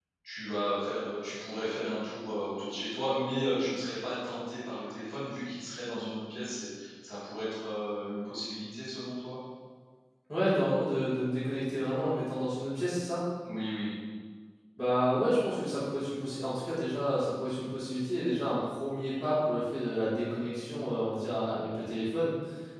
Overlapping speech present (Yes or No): No